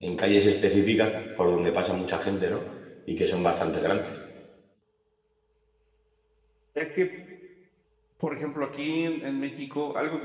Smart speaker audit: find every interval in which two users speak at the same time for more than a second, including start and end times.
none

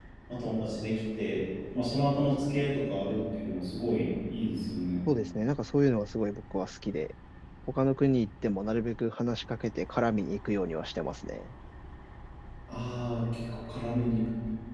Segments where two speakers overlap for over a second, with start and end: none

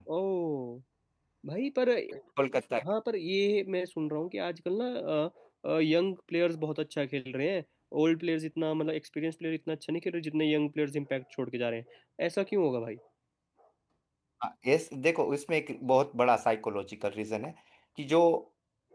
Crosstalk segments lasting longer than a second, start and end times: none

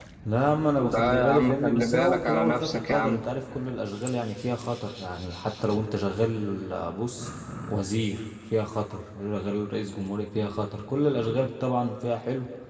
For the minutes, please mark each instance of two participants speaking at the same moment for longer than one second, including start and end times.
0.9-3.2

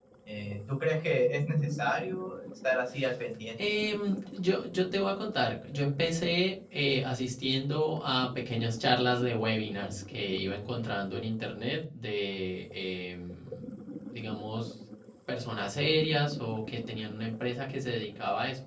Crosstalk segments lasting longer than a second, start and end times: none

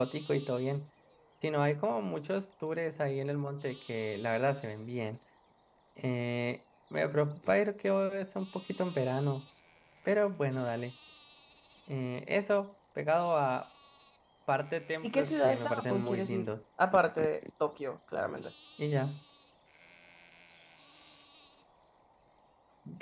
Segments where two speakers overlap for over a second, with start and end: 15.0-16.5

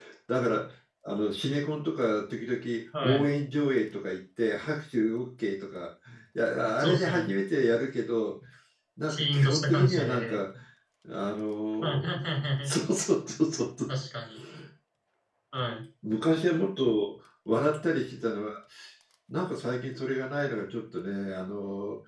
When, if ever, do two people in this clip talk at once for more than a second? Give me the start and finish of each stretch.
9.1-10.4

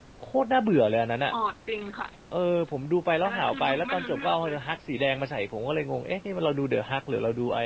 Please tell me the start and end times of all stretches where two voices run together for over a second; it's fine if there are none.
3.2-4.8

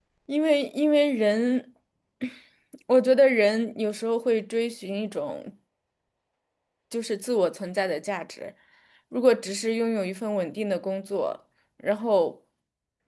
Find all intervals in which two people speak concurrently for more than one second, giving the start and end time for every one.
none

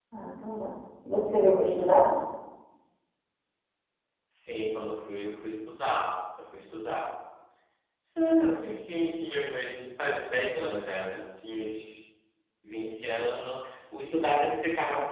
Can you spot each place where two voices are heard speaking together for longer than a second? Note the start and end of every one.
none

